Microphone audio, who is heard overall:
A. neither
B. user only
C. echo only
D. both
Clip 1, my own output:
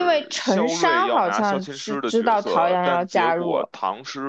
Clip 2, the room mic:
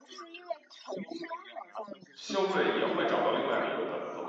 D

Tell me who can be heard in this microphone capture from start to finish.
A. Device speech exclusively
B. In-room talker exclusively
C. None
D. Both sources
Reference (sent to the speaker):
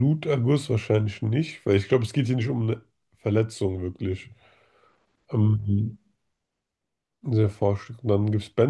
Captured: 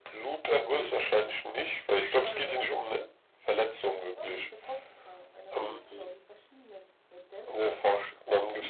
D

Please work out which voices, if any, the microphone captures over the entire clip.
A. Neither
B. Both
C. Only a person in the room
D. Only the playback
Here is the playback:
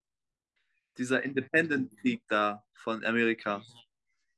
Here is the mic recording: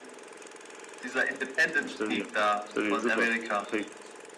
B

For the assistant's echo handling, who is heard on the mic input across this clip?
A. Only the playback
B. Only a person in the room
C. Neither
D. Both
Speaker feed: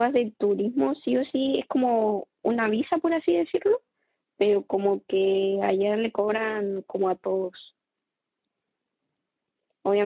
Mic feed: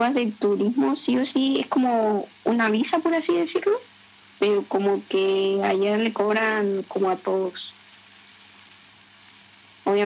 A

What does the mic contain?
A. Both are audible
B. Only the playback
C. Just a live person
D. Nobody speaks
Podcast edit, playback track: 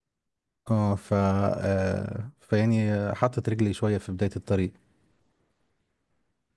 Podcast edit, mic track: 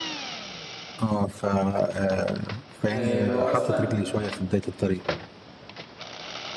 A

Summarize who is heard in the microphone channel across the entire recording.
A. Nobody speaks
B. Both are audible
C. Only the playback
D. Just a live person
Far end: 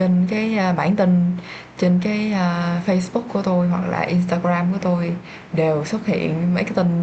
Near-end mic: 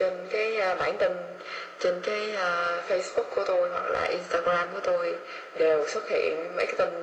C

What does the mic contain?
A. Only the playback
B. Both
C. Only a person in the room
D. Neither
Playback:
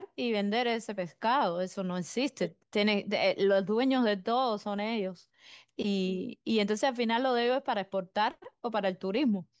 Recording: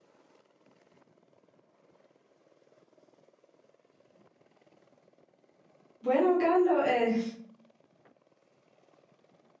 C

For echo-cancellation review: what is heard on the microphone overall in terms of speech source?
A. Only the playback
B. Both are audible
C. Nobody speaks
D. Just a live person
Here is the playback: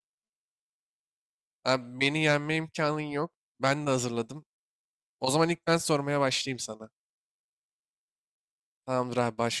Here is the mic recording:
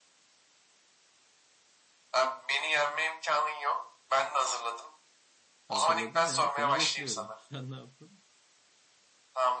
B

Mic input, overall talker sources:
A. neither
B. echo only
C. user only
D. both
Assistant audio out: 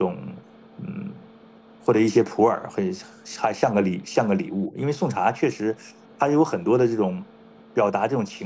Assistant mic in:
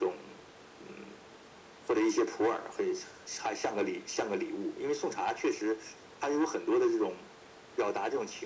B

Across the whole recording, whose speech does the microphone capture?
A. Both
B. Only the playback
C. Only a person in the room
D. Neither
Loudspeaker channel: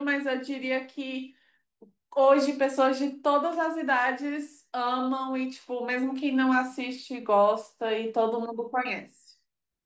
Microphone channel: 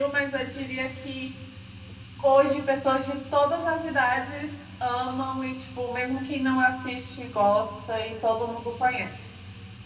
B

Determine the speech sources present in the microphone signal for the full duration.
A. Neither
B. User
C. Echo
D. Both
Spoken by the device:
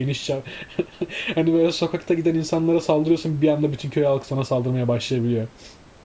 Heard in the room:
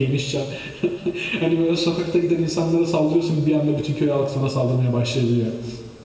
C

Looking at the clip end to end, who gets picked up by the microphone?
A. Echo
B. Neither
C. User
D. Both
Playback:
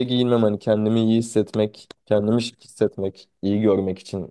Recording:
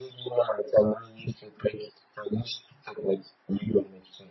A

